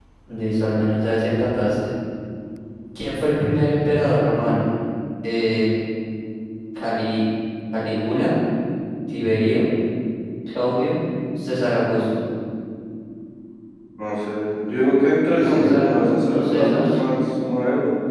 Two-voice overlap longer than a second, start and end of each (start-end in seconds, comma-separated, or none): 15.3-17.0